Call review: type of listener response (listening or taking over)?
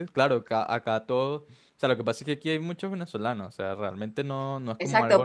taking over